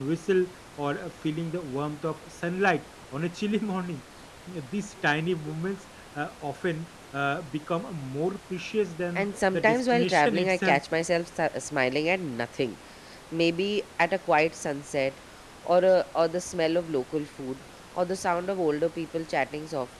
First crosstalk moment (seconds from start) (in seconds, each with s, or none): 9.2 s